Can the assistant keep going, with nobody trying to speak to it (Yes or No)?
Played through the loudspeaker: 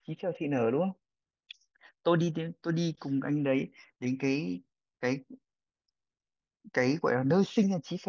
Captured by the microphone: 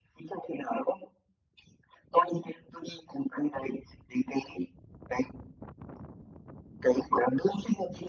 Yes